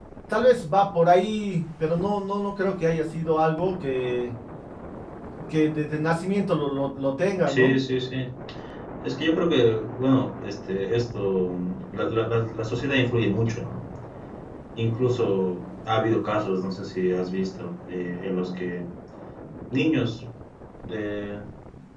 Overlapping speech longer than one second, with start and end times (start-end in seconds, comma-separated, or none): none